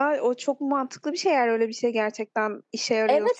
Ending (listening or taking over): taking over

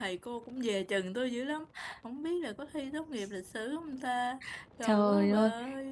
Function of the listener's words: taking over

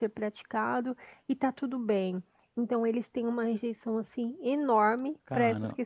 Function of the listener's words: listening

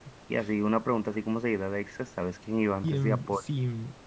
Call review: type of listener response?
taking over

